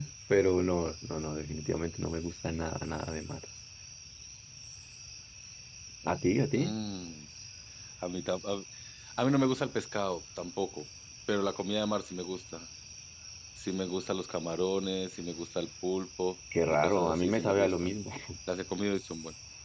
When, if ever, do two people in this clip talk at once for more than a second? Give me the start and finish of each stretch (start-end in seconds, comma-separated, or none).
16.7-17.9